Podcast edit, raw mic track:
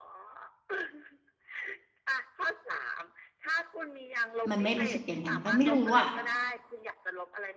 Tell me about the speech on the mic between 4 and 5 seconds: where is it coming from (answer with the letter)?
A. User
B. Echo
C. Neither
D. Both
D